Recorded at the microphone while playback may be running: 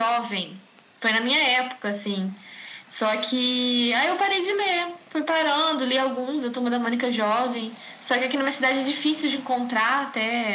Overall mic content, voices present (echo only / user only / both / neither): echo only